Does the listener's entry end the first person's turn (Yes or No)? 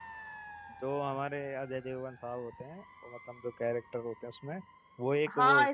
Yes